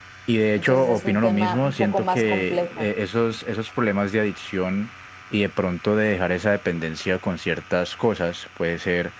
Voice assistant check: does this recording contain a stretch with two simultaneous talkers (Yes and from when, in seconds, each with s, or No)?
Yes, from 0.6 s